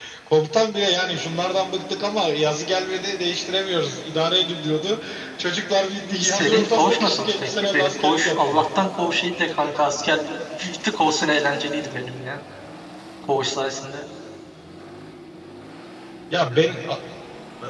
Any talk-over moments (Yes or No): Yes